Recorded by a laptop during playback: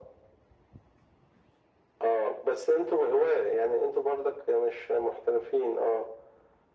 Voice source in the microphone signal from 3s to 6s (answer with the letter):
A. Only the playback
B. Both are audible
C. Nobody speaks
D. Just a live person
A